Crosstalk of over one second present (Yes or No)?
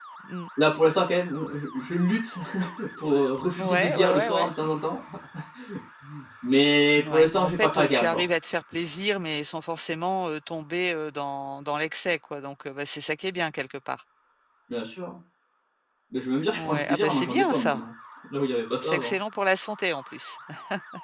Yes